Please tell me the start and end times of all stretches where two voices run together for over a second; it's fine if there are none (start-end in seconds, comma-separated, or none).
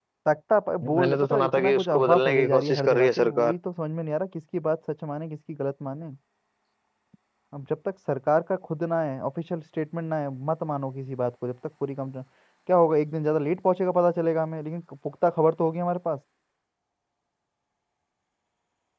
0.8-3.5